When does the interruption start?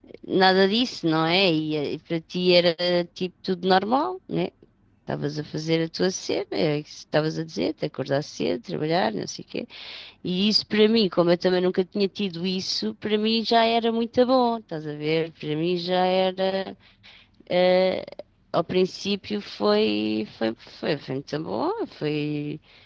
none

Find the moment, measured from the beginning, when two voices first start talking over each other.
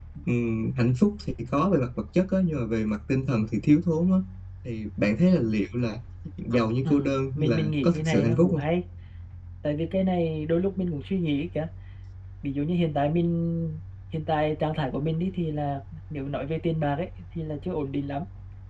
6.8 s

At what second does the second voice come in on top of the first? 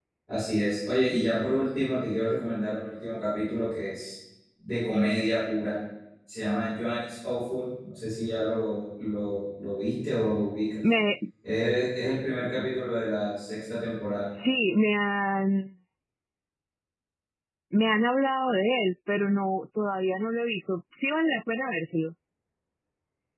none

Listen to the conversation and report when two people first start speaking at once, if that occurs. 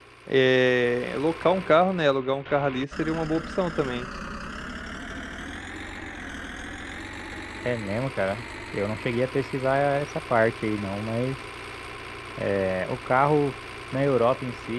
none

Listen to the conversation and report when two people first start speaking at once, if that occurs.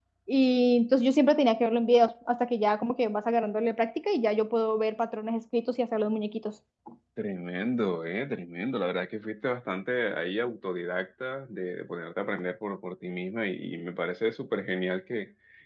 none

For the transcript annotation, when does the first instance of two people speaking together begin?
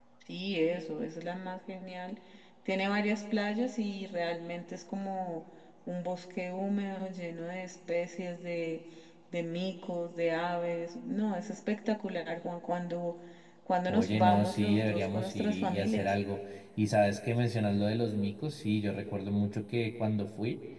13.9 s

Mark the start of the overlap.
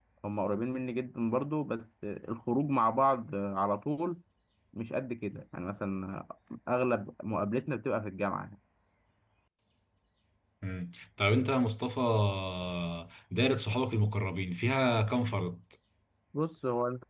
none

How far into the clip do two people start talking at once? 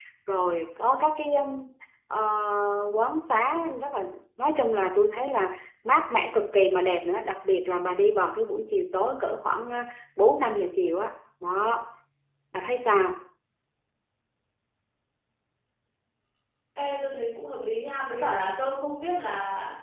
none

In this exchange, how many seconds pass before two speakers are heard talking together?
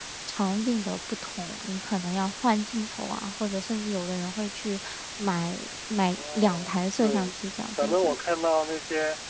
6.2 s

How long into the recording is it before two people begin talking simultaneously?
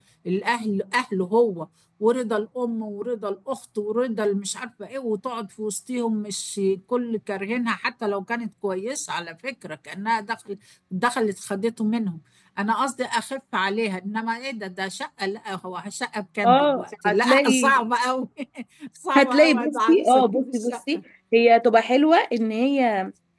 16.4 s

